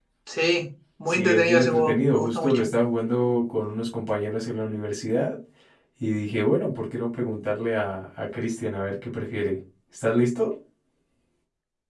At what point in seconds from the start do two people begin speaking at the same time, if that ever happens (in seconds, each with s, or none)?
1.1 s